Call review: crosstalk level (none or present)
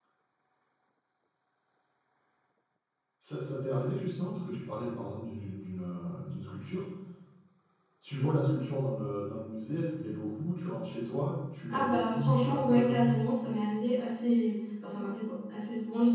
present